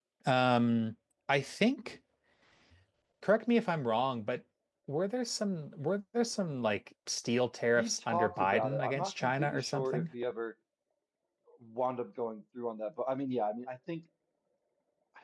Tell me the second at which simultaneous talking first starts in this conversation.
7.8 s

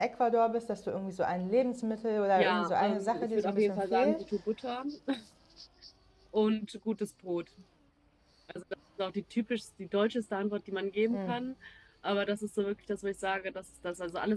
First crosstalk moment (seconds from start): 2.4 s

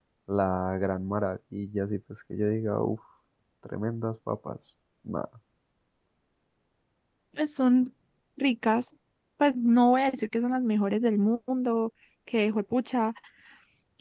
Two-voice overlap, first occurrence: none

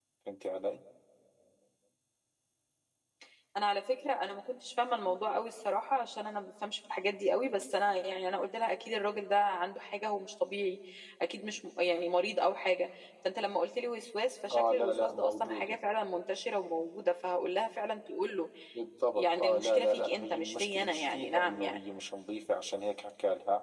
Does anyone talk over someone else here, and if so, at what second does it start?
14.5 s

